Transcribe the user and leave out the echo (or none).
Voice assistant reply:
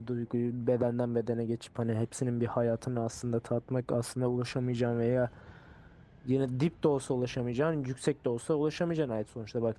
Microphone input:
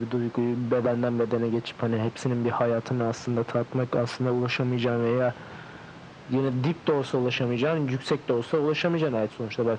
none